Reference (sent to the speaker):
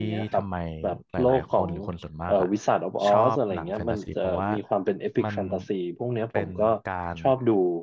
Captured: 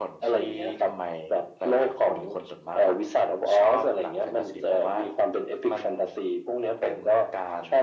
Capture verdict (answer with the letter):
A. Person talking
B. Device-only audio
B